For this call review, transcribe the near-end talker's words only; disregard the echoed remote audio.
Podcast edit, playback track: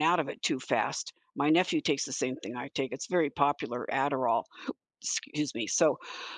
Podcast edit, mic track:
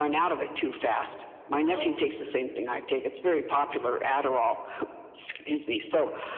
Oh, right.

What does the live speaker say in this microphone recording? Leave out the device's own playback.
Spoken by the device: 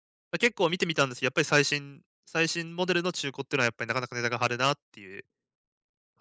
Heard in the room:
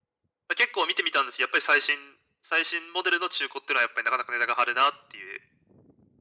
none

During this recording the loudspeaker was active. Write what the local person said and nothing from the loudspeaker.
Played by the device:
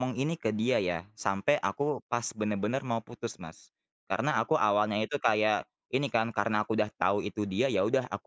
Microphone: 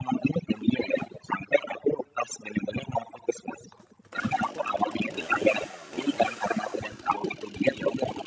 none

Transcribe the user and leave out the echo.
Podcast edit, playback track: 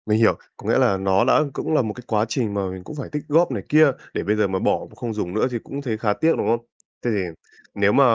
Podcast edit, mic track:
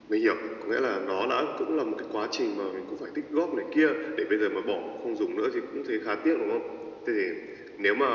none

